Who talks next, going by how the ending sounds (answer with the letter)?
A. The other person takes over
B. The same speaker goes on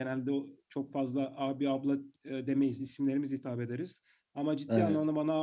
B